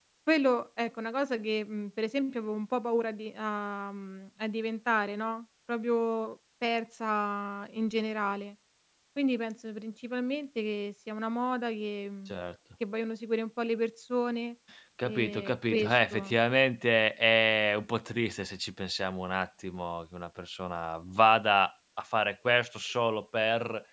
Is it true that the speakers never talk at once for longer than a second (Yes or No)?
No